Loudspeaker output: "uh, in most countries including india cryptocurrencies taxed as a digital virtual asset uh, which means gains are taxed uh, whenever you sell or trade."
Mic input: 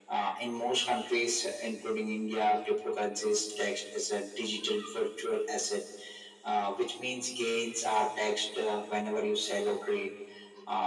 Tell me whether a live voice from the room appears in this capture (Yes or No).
No